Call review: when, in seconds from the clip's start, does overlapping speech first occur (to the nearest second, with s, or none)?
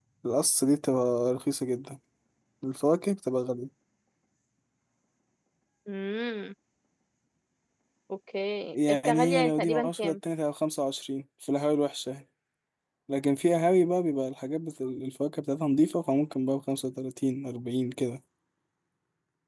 9 s